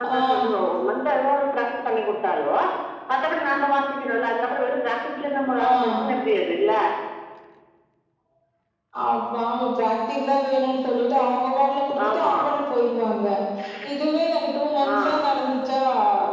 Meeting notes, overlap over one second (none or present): none